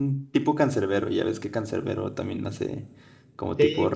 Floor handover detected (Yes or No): Yes